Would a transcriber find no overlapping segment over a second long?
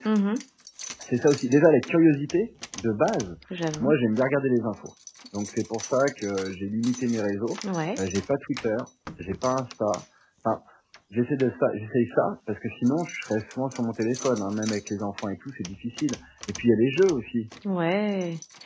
Yes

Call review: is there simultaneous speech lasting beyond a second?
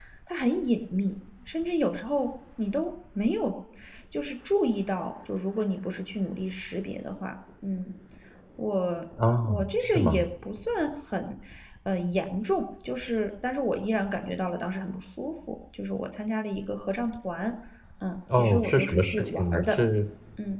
Yes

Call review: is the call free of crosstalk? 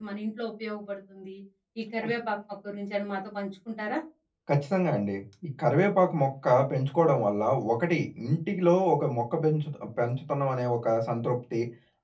Yes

